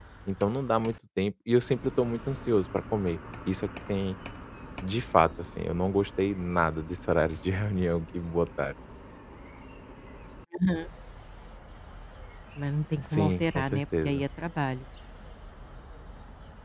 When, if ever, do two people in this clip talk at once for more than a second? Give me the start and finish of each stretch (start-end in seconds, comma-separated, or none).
13.0-14.2